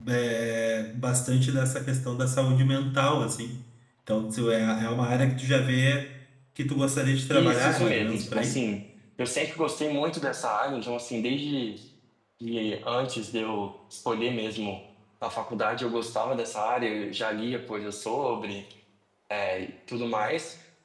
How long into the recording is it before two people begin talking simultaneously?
7.3 s

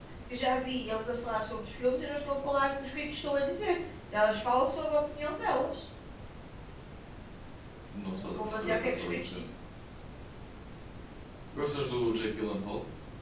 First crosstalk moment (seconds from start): 8.2 s

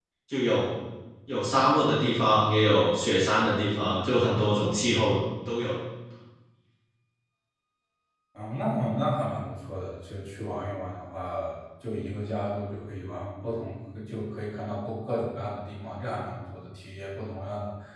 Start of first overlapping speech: none

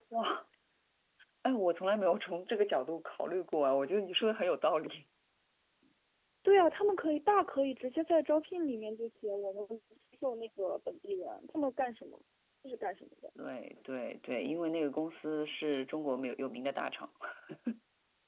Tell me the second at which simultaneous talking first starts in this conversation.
none

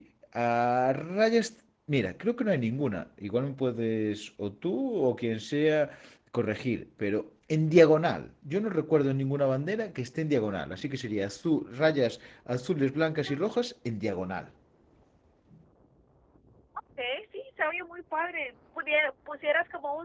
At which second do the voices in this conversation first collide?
none

